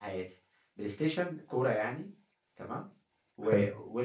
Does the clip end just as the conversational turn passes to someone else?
No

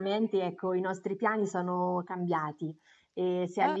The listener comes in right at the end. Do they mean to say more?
No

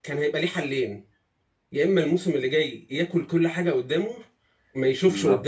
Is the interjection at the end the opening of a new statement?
No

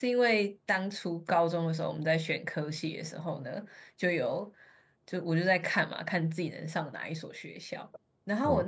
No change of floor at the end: Yes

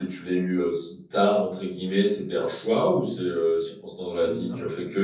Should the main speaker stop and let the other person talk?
No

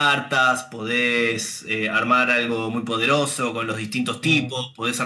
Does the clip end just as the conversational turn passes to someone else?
No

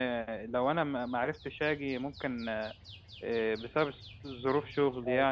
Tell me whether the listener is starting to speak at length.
No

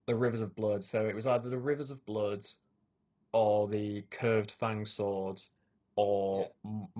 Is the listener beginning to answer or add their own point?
No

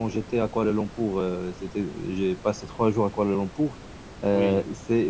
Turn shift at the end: No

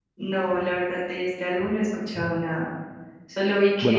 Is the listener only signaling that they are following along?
Yes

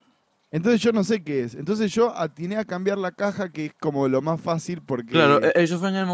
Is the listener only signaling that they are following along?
No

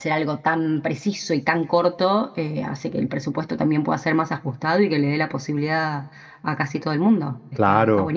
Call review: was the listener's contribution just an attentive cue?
No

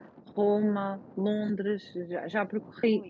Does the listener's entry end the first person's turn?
No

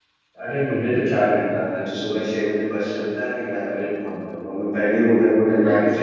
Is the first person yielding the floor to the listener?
Yes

